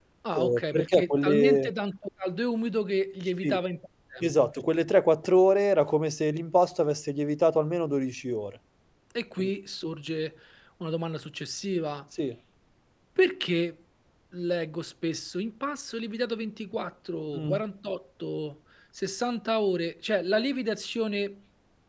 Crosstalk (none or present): present